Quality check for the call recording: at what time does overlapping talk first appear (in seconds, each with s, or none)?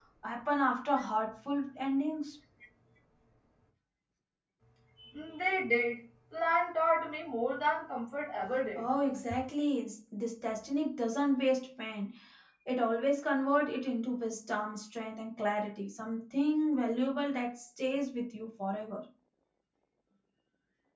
none